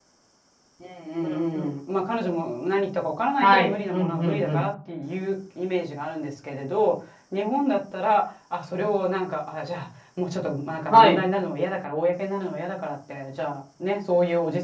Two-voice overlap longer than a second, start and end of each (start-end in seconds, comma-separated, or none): 3.4-4.6